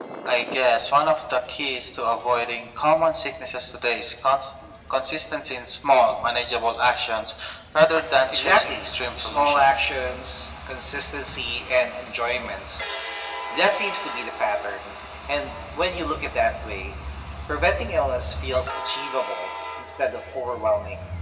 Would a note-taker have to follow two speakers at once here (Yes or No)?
Yes